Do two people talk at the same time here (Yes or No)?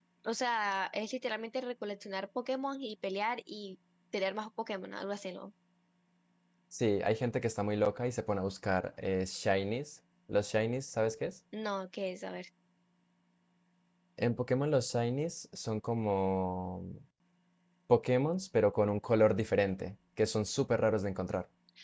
No